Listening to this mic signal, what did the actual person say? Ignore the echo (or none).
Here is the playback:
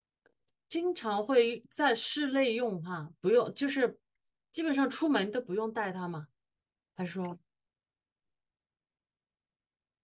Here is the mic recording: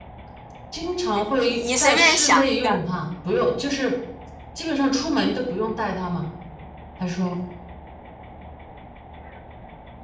你你随便想一个。